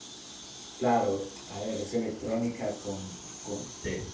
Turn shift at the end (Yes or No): No